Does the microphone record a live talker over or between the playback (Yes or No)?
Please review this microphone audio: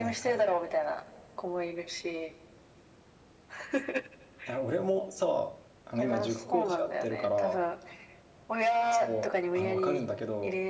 Yes